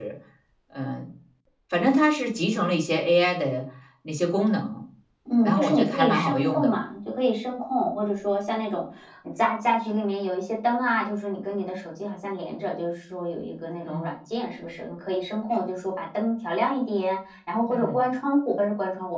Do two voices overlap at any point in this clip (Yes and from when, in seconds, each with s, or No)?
Yes, from 5.4 s